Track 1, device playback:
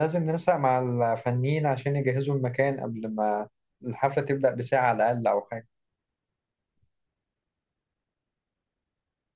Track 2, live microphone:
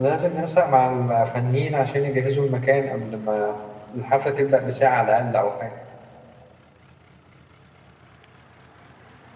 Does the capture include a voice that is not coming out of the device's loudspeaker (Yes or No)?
No